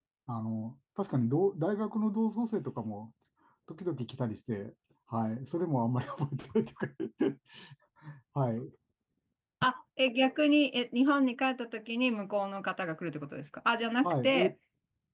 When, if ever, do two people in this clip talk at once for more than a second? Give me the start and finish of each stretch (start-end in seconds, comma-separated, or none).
none